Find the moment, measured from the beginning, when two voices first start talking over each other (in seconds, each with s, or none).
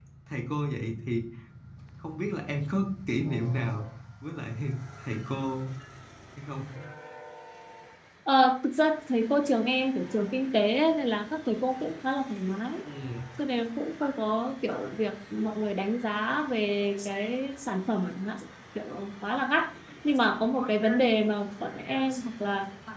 none